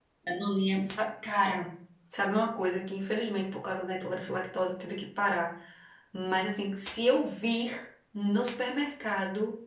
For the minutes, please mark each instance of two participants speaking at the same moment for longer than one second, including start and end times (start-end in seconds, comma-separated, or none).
none